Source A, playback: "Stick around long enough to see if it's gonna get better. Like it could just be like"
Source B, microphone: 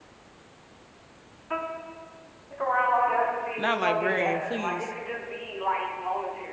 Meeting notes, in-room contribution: present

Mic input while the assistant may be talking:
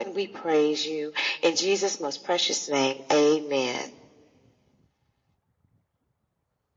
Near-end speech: none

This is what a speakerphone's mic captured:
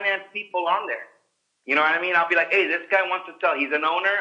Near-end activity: none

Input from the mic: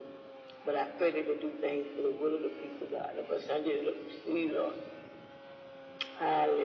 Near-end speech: none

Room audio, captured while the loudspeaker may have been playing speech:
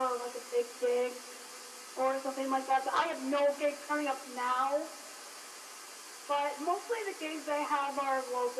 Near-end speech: none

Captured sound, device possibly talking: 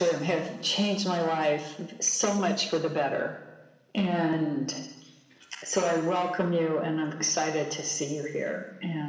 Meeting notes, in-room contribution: none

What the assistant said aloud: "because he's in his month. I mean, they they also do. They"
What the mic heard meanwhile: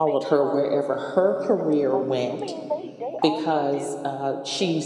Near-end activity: present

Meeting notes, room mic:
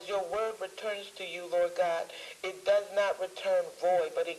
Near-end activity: none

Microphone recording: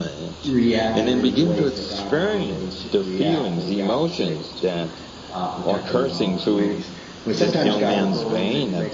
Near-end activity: present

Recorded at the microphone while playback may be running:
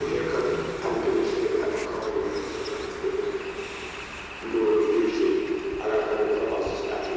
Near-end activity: none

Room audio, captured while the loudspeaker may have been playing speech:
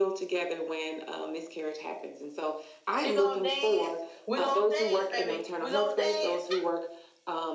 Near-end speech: present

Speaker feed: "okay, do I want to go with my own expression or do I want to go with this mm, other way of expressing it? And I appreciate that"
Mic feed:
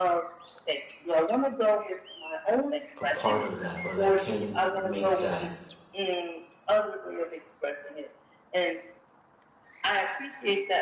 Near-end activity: present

